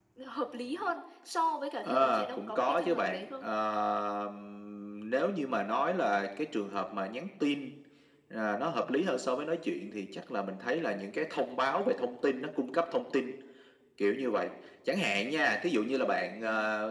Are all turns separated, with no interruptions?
No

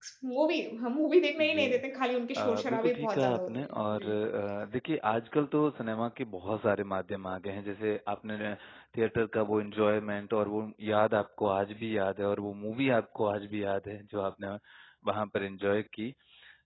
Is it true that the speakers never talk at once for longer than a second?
No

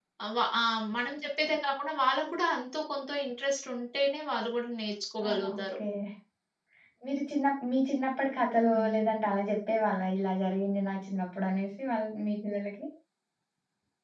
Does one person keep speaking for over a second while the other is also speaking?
No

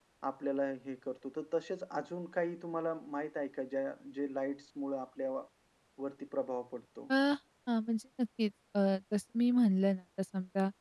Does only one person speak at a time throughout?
Yes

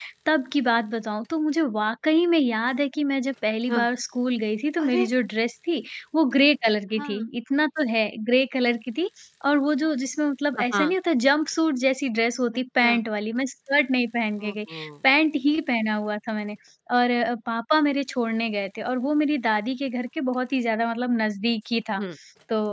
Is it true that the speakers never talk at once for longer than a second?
Yes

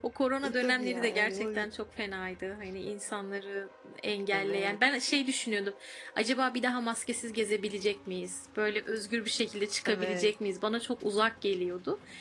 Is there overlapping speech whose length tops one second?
Yes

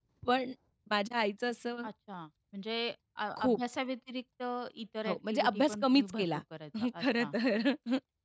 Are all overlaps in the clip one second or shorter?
No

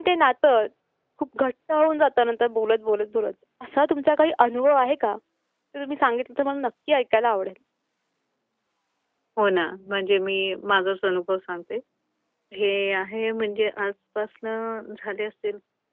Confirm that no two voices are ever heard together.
Yes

